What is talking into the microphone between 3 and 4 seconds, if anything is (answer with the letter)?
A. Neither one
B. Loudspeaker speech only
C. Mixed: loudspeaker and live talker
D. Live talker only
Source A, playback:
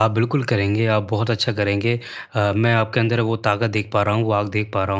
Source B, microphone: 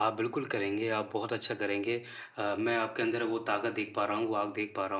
B